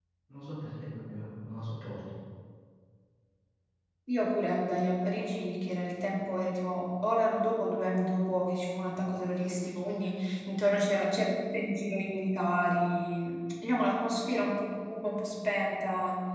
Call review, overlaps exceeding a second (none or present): none